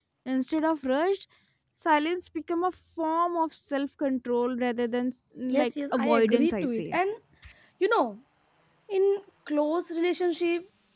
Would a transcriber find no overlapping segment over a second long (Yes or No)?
No